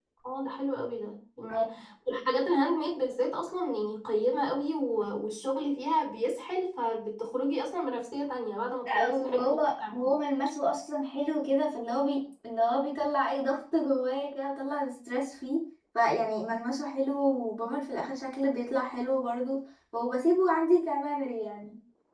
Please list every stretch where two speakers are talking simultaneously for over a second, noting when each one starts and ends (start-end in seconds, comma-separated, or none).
8.8-10.1